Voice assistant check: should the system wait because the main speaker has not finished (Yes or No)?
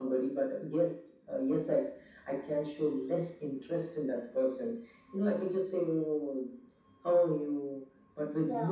Yes